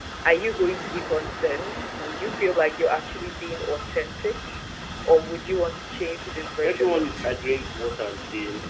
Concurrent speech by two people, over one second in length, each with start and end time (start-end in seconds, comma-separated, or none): 6.0-7.3